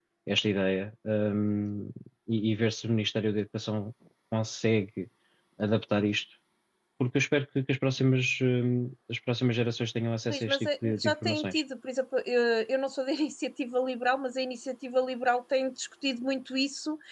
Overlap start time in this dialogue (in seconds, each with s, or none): 10.3 s